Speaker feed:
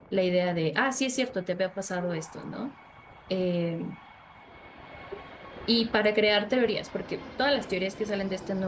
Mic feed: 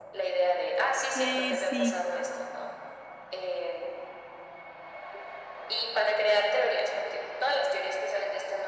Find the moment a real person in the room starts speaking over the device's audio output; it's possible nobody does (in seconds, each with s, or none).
1.1 s